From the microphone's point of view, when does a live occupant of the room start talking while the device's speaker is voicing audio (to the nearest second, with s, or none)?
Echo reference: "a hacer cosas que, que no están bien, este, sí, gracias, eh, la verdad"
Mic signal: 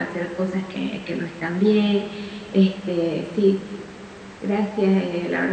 none